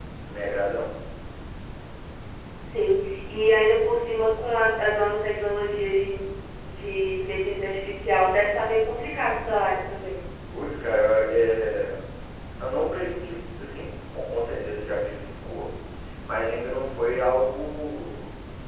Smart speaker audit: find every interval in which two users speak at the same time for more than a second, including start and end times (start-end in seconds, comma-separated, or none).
none